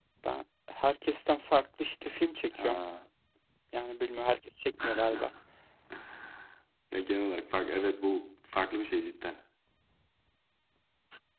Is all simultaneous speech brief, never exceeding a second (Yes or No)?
Yes